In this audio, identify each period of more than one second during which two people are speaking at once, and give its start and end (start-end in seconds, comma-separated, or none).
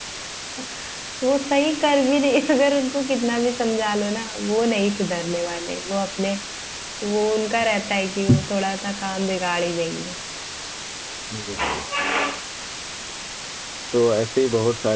none